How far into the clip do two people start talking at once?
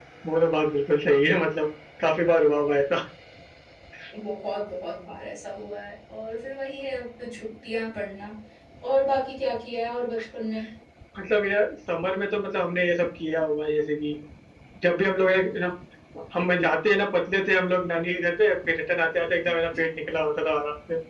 none

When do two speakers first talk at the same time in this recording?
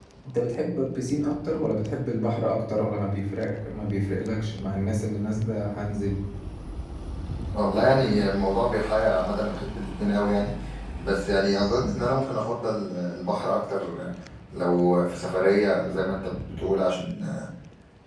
none

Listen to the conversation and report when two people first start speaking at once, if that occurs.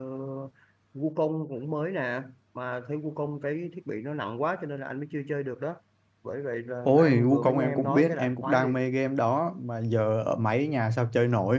7 s

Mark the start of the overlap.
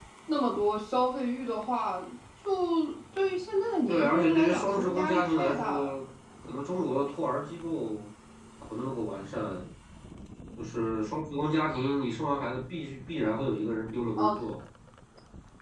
4 s

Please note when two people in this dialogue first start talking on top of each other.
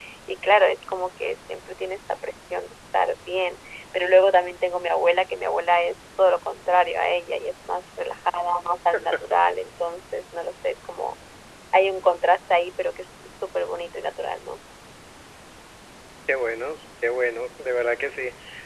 none

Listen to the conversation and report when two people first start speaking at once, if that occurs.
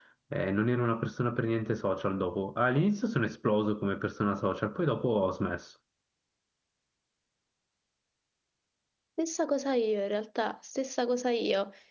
none

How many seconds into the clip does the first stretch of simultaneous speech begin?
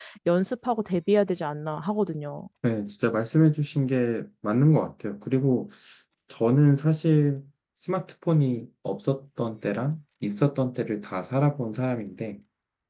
none

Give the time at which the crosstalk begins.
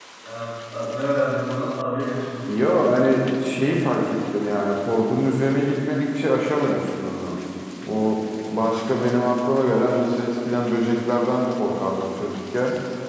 none

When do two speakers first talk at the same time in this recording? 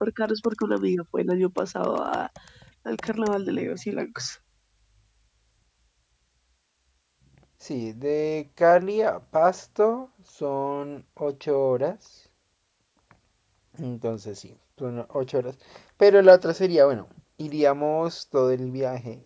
none

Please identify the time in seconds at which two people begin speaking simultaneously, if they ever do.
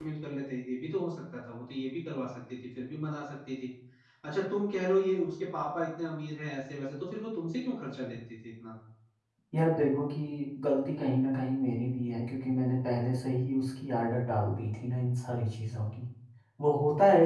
none

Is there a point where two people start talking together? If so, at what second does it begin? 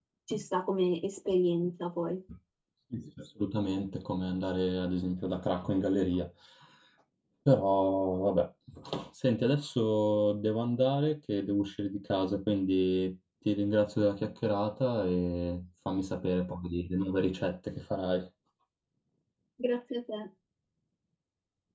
none

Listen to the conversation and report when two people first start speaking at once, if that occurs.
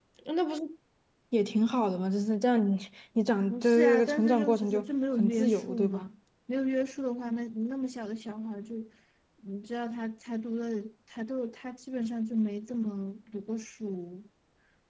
3 s

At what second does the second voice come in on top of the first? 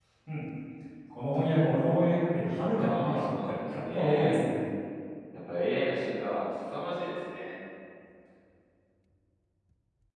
3 s

